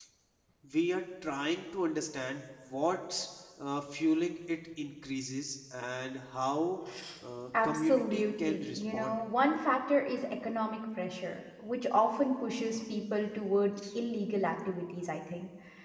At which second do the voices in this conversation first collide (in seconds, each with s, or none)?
7.6 s